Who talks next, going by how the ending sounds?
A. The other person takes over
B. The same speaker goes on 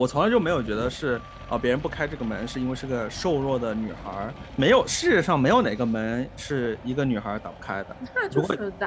A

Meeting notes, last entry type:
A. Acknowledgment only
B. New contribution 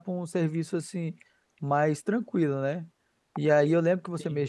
A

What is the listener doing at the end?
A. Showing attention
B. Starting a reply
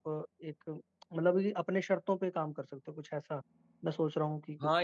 B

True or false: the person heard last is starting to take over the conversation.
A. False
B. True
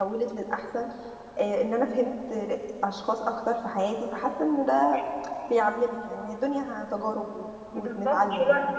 B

